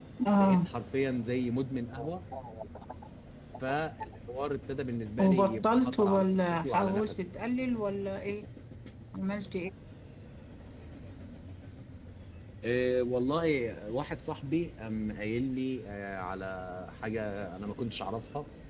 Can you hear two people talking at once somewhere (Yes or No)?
Yes